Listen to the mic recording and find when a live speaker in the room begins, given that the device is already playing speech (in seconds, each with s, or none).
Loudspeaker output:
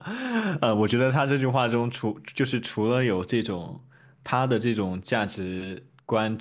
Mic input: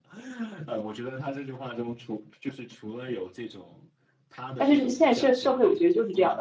4.5 s